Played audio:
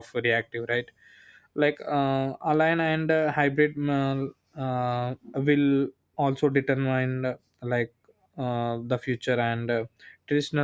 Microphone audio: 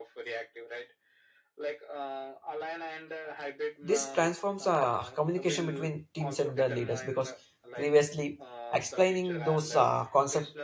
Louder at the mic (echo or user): user